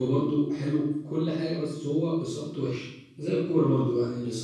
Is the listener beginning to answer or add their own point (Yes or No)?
No